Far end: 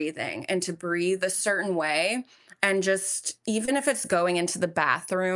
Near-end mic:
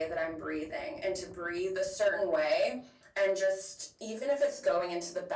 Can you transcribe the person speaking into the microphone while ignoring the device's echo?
none

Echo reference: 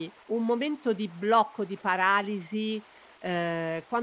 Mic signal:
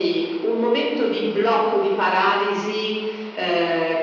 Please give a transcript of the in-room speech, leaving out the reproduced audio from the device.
none

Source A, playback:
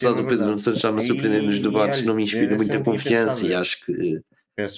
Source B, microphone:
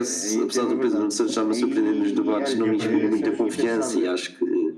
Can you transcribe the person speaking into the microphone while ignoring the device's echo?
Não quer perder amigos, então.

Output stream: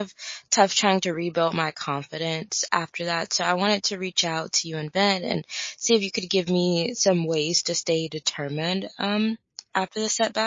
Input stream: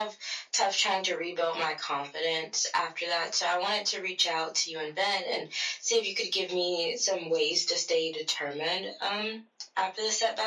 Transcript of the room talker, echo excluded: none

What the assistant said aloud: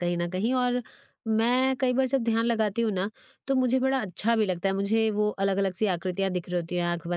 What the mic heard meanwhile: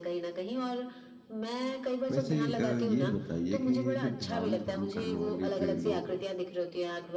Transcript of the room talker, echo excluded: वैसे अ, ये बताइए कि ये जो ध्यान भंग करने वाले जो ये लोग हैं,

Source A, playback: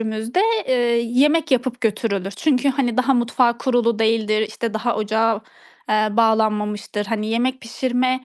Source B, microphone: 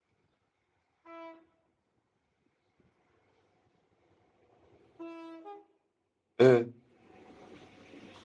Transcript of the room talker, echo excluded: Evet.

